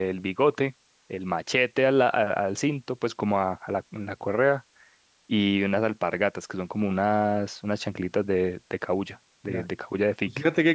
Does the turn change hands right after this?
Yes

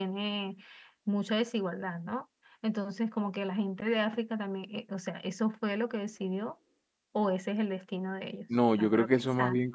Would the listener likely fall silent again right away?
No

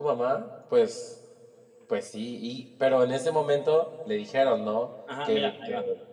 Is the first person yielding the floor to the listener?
Yes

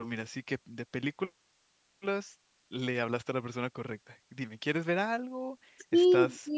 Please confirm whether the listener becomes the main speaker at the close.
Yes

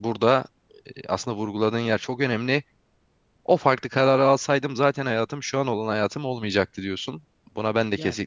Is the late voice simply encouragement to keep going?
Yes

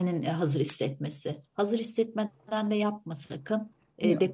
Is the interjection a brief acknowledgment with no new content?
Yes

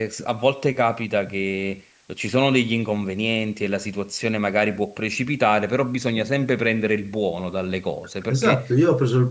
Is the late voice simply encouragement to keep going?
No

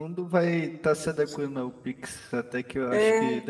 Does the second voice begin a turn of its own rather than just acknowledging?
No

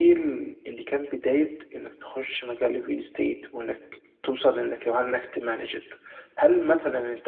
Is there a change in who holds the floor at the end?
No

